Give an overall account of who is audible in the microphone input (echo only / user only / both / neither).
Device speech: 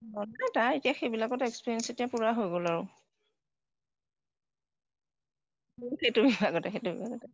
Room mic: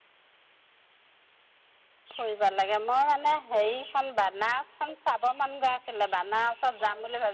user only